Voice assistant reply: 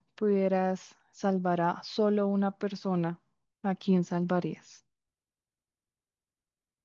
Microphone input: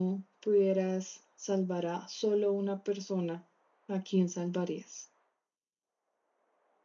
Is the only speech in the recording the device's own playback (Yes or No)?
Yes